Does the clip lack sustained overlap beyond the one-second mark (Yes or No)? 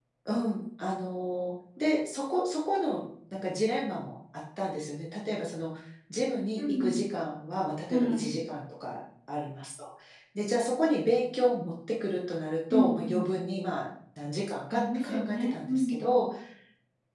No